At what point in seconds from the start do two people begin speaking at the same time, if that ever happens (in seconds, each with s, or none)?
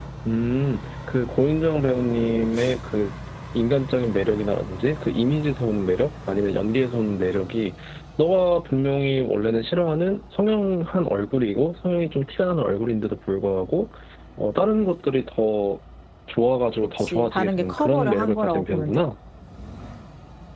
17.0 s